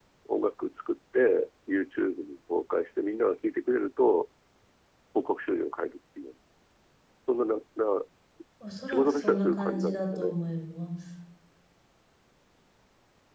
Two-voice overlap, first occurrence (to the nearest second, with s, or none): 9 s